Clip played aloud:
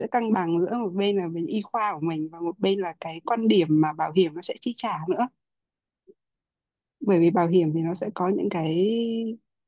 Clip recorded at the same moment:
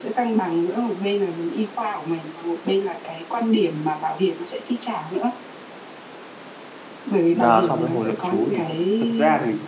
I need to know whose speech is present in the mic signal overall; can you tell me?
both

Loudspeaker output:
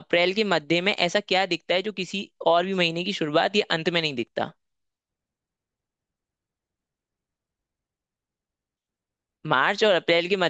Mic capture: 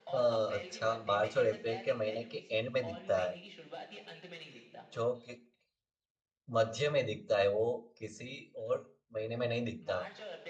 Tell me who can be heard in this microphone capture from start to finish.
both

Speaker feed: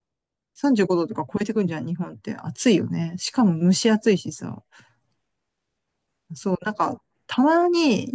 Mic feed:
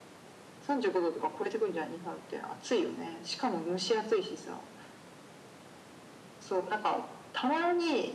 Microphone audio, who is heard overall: echo only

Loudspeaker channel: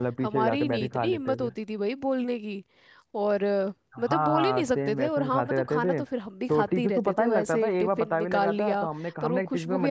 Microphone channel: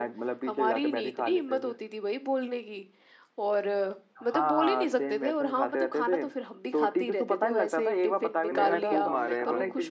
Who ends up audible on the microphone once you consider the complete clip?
both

